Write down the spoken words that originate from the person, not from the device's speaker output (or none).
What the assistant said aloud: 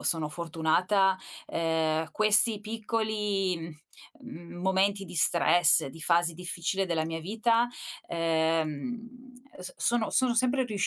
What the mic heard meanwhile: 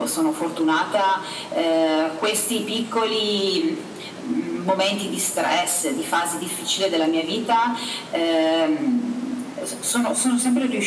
none